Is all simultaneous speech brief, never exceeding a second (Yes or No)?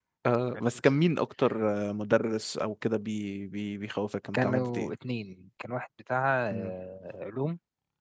Yes